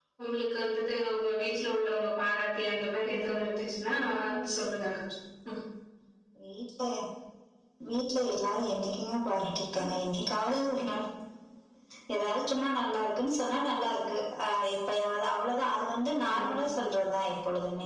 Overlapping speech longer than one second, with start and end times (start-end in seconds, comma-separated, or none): none